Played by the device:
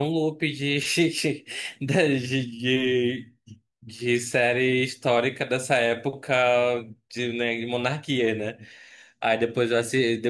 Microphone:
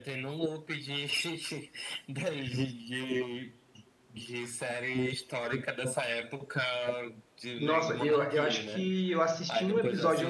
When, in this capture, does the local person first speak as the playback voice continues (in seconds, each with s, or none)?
7.6 s